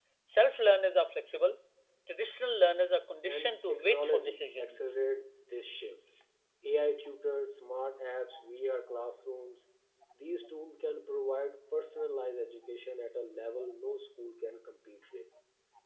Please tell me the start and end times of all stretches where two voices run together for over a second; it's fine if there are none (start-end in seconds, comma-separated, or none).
3.3-4.8